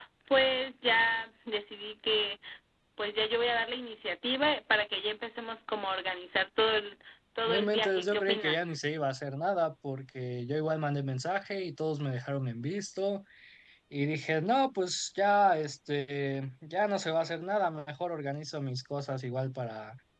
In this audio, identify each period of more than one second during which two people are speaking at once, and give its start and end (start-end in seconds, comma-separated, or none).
7.5-8.7